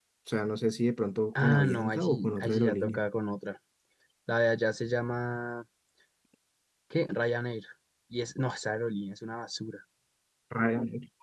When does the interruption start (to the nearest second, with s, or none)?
1 s